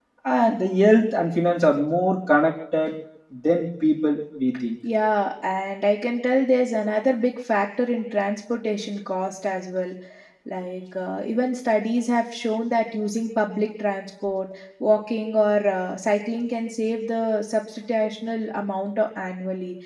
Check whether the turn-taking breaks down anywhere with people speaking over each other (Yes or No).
No